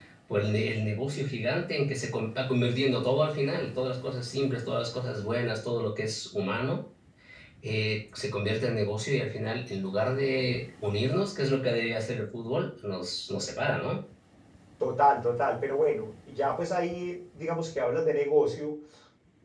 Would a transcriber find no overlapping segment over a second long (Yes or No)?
Yes